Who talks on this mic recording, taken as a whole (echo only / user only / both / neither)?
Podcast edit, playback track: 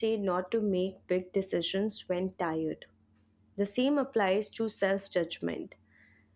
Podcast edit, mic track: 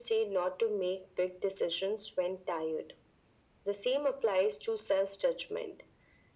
echo only